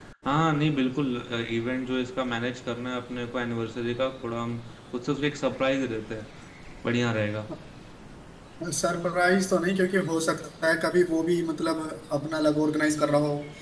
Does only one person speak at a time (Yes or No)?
Yes